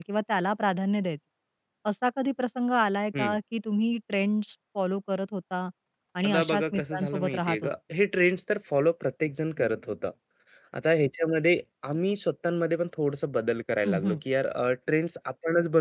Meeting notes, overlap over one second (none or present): present